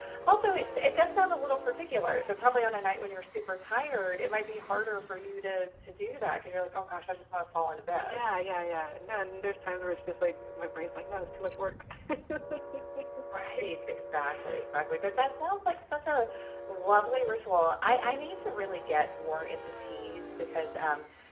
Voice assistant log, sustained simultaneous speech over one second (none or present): none